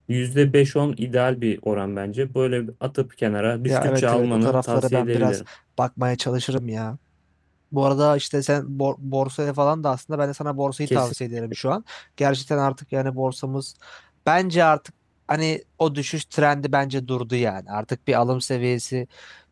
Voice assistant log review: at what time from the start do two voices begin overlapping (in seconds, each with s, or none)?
3.7 s